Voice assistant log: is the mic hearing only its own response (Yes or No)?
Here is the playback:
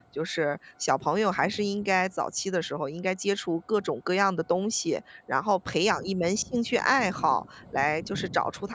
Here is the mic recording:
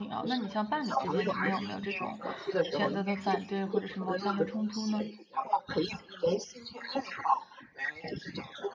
No